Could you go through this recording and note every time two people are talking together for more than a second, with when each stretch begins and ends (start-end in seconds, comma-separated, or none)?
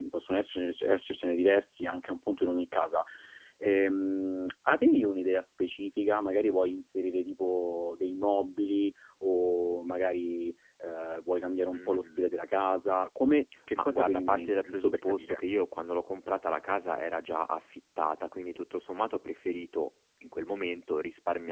13.7-15.4